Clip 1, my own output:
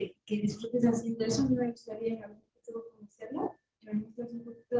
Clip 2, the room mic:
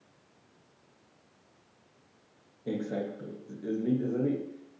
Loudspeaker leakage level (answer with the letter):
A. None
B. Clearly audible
A